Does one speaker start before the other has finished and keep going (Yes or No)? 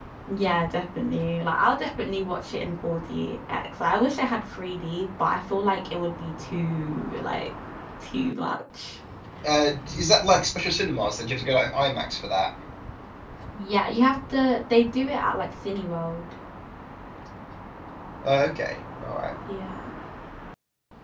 No